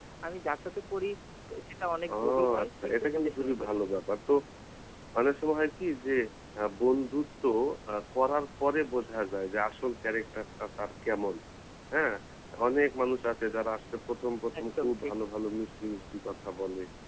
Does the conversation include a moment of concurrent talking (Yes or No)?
Yes